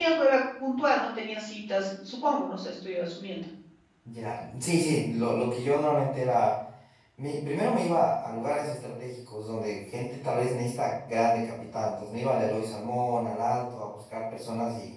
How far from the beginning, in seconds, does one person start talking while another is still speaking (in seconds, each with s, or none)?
none